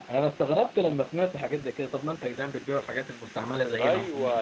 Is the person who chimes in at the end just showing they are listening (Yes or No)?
No